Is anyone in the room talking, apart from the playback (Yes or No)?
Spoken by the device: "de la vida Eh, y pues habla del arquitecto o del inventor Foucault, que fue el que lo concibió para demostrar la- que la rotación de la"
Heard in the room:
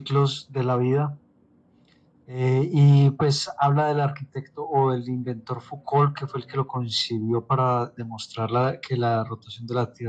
No